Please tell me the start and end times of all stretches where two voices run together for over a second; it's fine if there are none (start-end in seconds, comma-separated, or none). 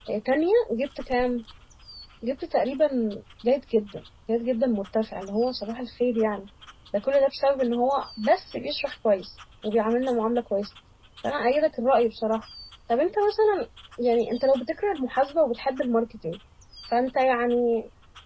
none